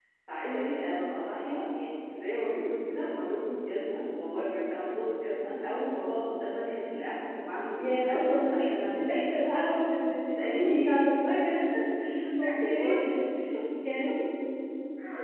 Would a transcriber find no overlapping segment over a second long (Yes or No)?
No